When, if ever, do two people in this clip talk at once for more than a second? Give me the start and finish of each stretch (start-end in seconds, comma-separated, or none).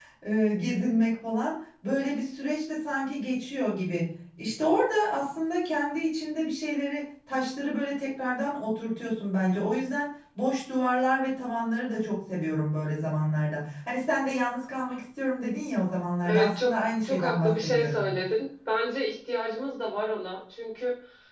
16.2-18.1